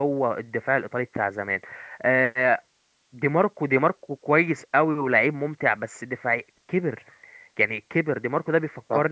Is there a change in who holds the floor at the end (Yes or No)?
No